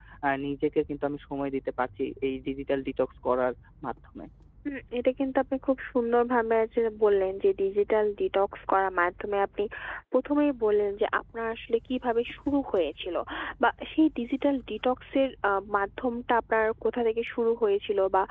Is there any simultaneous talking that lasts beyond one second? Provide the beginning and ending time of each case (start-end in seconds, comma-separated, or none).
none